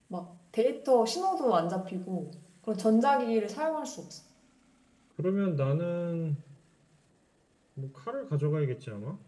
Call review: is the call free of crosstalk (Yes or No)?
Yes